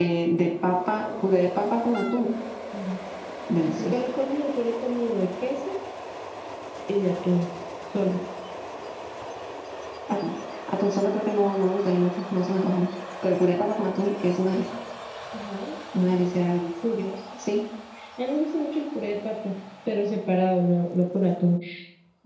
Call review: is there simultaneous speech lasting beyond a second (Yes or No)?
No